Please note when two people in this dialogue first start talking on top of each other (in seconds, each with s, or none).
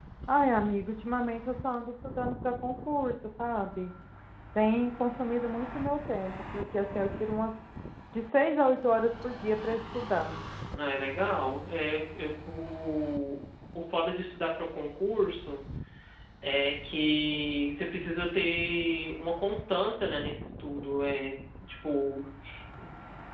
none